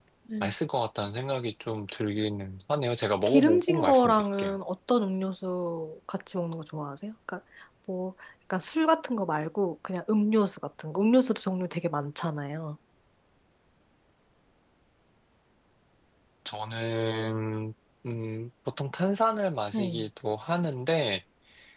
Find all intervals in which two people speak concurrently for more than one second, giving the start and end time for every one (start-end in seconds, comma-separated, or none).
3.3-4.6